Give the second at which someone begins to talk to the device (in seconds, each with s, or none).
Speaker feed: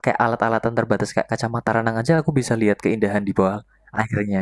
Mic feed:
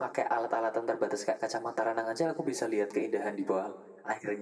none